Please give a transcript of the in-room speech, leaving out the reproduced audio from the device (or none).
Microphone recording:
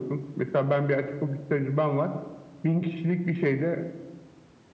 none